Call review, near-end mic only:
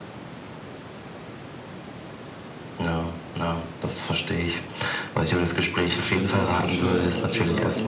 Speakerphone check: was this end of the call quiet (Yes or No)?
No